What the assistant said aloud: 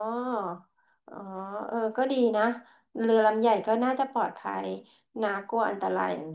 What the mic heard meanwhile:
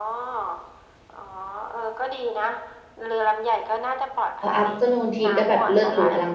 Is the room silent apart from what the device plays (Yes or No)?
No